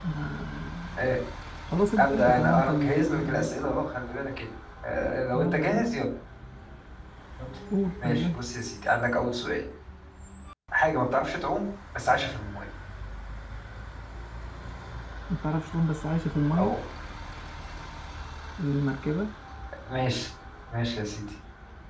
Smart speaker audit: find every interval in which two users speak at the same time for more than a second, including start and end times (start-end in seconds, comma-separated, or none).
2.0-3.5